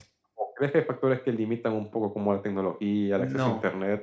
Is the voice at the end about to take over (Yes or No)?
No